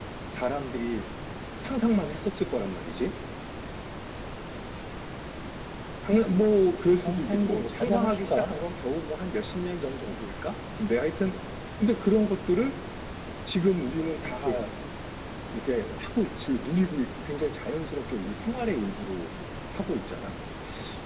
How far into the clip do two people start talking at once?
6.9 s

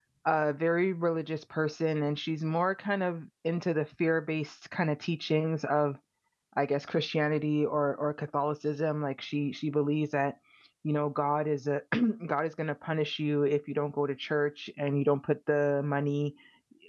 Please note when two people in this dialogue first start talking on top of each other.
none

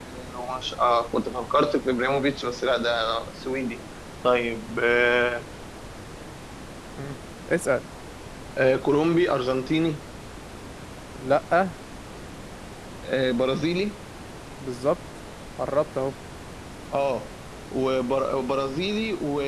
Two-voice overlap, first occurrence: none

